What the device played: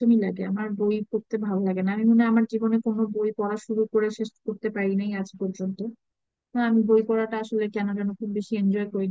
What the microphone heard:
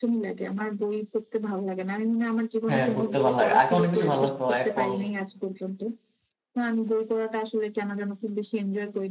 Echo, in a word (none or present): present